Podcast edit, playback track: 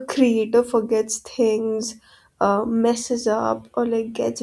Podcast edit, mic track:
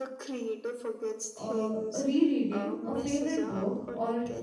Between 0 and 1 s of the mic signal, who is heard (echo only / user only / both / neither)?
echo only